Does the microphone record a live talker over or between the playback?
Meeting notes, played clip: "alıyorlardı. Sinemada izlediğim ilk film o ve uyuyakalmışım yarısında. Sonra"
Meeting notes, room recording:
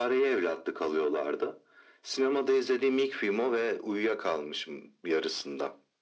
No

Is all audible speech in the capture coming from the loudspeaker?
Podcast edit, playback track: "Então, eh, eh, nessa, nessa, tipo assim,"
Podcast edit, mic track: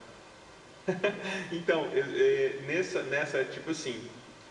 Yes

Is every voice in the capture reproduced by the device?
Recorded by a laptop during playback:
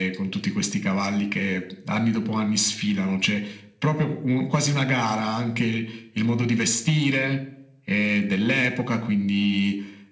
Yes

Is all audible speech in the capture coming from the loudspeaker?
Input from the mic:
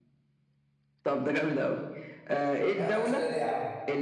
No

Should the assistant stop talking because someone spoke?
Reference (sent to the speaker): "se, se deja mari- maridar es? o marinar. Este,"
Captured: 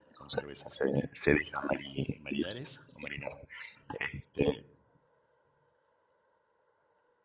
No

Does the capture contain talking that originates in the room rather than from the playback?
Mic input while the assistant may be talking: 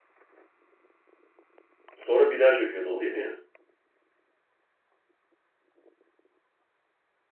Yes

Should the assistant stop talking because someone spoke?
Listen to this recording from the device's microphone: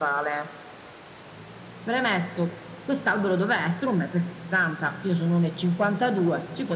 No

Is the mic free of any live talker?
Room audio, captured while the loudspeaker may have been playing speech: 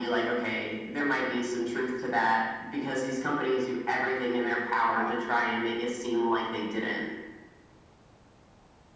No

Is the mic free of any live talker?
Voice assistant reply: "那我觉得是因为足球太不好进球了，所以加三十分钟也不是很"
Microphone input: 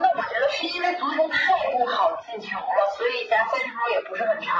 Yes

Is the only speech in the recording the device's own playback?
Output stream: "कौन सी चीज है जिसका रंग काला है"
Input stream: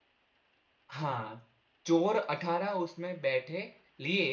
No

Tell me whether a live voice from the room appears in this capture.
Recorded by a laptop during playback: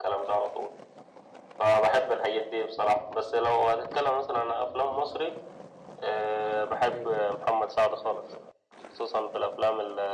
Yes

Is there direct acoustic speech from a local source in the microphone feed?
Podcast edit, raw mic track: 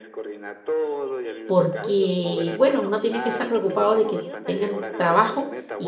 Yes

